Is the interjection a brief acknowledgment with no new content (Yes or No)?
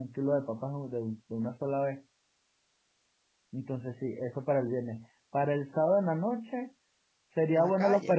Yes